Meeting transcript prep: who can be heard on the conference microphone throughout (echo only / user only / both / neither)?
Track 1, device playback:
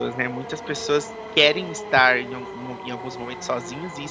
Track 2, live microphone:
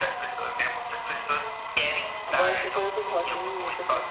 both